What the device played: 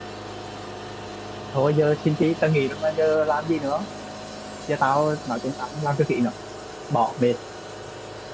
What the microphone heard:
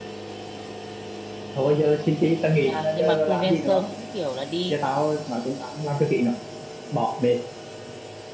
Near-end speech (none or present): present